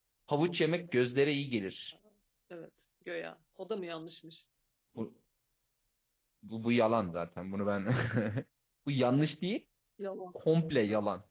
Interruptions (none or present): none